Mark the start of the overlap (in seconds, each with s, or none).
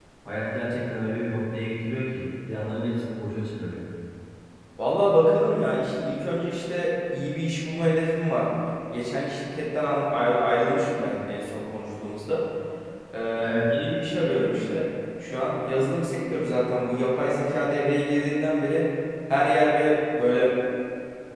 none